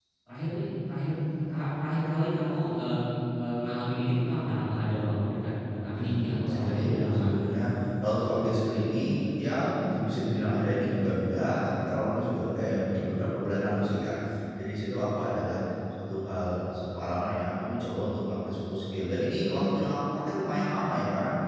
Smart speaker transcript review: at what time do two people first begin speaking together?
6 s

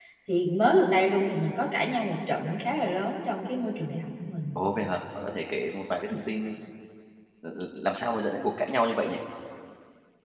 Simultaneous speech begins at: none

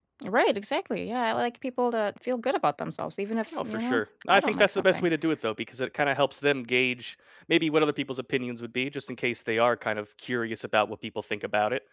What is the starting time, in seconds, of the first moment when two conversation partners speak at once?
4 s

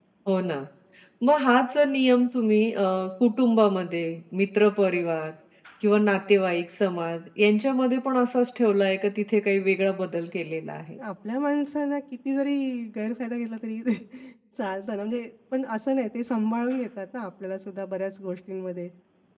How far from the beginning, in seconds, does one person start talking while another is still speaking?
none

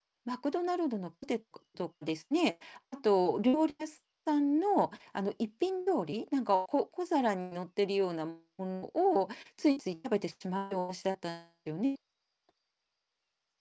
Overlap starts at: none

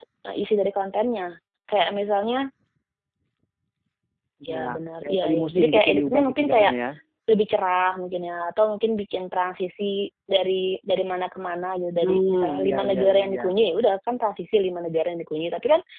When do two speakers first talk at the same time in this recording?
4 s

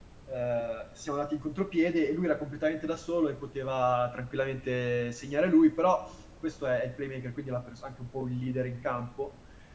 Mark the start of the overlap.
none

